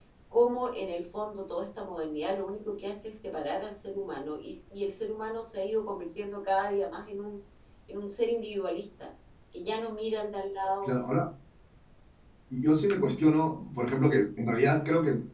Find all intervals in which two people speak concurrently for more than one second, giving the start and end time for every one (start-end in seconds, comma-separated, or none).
none